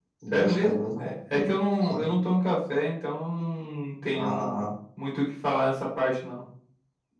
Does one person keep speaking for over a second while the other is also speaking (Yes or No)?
Yes